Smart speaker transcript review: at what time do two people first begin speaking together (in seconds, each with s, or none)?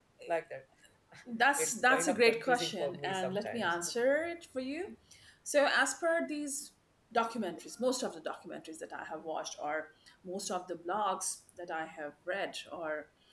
1.6 s